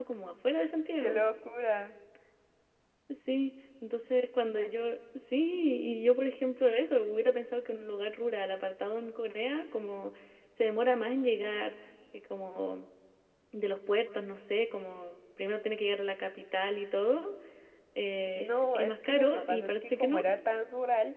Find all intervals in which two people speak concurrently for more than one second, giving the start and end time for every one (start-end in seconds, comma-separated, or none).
18.4-20.2